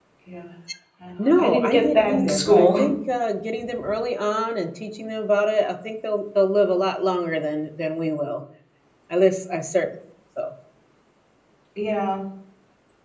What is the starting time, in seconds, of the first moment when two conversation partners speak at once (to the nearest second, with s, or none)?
1 s